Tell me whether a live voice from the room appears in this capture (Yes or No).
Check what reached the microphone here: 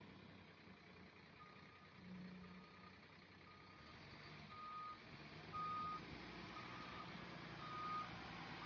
No